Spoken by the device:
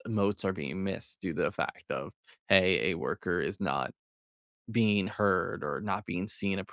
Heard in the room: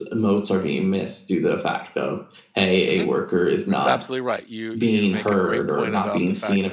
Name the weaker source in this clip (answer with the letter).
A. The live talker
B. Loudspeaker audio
A